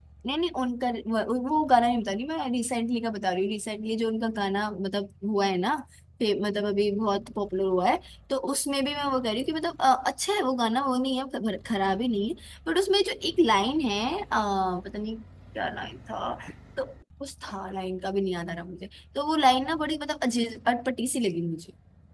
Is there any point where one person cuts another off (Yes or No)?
No